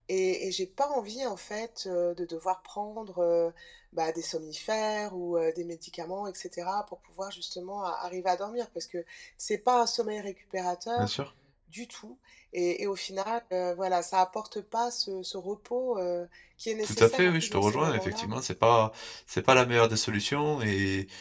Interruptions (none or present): present